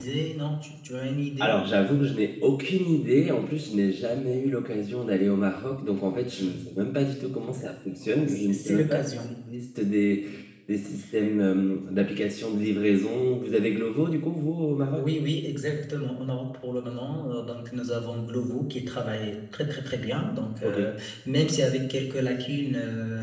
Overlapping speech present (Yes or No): Yes